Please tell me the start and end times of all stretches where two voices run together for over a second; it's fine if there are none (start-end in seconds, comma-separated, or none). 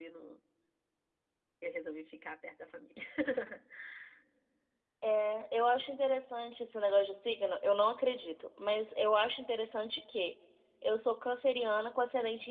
none